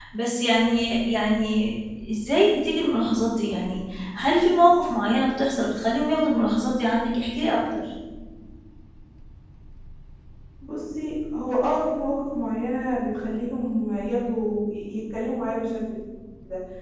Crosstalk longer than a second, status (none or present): none